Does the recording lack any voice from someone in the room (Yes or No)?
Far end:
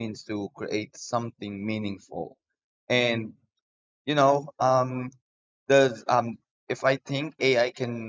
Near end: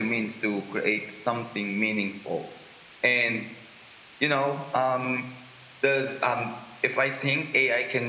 Yes